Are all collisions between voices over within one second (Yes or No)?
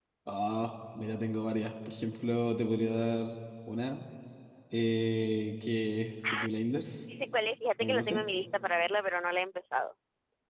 Yes